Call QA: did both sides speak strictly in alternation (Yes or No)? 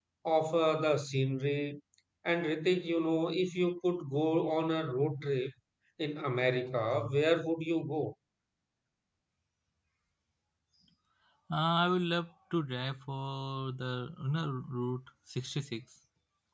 Yes